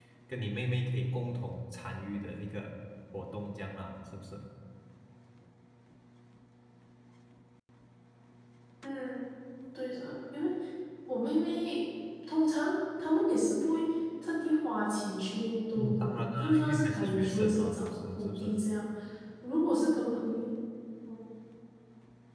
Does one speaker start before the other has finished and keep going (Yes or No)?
Yes